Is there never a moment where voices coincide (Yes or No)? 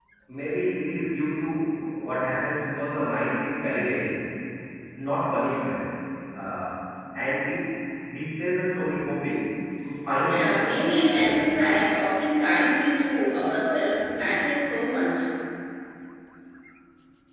No